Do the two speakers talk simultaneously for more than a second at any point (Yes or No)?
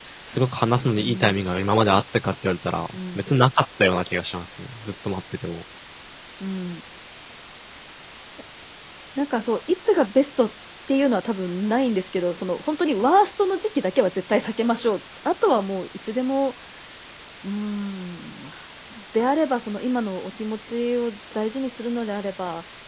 No